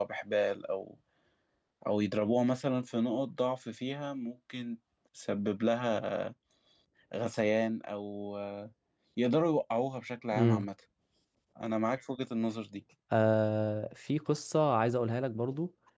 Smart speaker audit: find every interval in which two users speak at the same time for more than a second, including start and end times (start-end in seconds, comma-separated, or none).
none